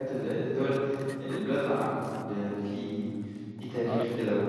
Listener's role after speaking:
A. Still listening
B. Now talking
B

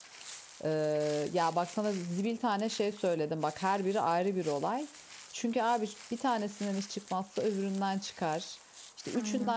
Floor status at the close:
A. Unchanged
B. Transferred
A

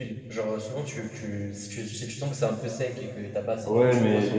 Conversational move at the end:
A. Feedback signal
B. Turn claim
B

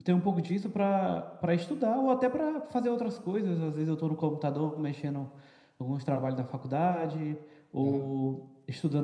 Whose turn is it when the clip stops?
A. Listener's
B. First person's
B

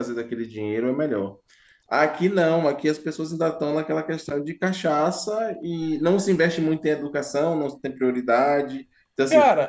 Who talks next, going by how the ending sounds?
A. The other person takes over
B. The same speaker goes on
B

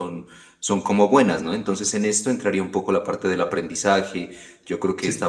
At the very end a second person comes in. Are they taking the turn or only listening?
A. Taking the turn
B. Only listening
B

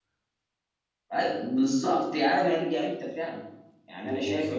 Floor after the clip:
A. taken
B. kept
A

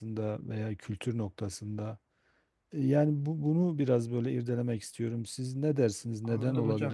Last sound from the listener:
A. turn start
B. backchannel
A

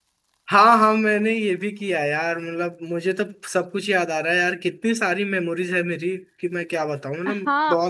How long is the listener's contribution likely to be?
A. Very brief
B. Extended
B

